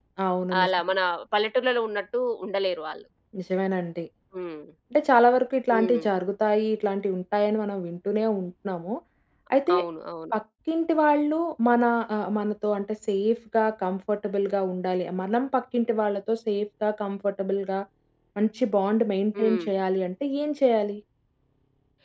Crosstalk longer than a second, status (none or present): none